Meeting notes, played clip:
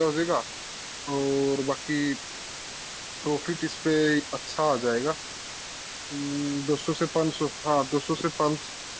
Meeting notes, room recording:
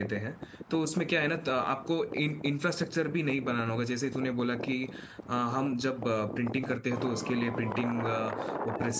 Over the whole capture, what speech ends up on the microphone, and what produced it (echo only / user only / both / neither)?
user only